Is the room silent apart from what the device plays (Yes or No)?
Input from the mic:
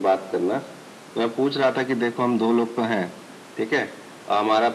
Yes